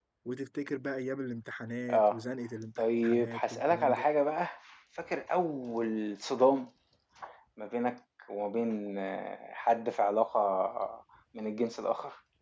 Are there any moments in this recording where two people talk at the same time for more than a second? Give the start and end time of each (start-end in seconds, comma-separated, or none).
2.8-4.1